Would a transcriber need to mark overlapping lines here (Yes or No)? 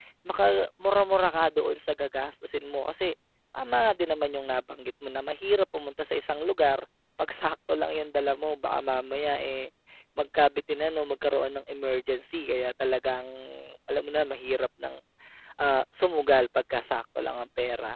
No